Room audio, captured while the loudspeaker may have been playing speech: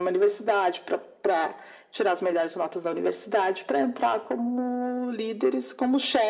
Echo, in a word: present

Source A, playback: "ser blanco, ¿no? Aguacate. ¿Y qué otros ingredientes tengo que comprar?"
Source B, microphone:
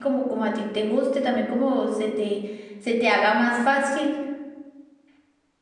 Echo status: none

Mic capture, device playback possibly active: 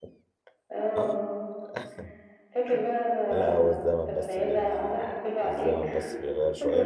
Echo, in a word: present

